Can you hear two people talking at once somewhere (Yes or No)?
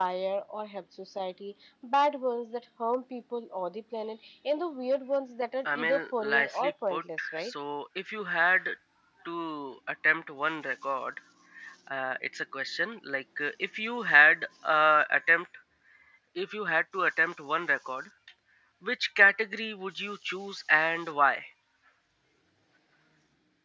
Yes